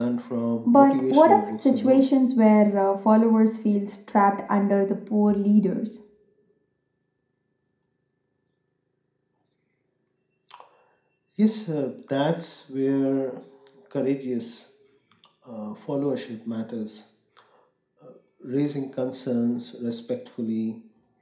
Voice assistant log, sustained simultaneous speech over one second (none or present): present